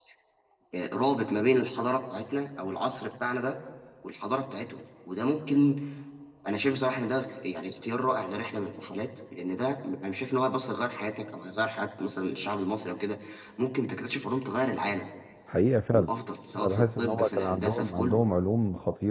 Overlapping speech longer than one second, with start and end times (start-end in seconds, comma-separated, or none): 16.6-18.2